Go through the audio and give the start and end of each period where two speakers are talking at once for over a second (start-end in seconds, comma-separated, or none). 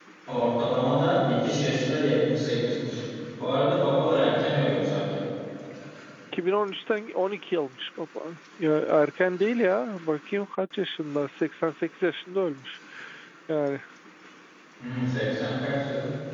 none